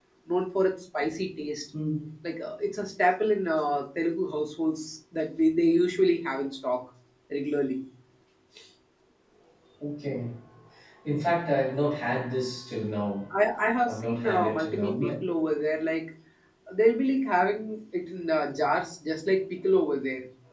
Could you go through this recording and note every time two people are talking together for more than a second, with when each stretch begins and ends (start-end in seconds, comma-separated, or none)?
13.9-15.1